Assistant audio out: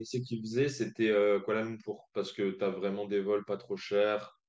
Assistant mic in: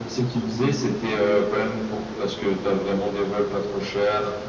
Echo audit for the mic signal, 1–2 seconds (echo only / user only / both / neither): echo only